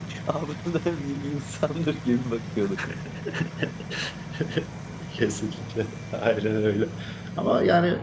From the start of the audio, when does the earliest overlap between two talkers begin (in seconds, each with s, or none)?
none